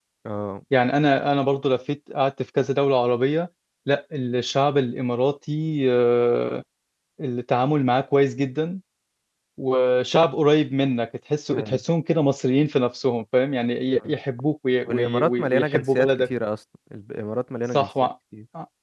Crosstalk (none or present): present